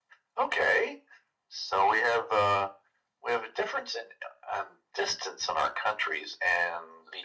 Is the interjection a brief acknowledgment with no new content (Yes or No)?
Yes